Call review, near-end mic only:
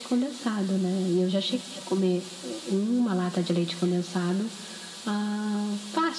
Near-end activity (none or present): none